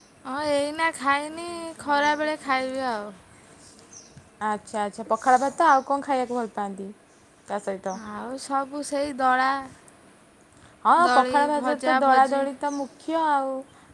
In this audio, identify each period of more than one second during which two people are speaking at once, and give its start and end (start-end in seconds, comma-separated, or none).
11.1-12.4